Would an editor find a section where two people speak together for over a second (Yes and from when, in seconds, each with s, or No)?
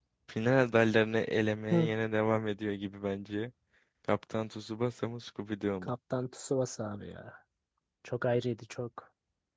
No